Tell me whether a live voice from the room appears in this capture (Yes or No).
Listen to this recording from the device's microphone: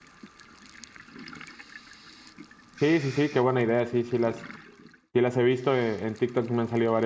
Yes